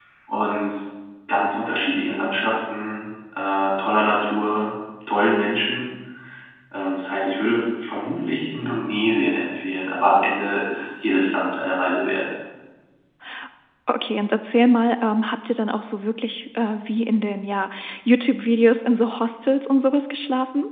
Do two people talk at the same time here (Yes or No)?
No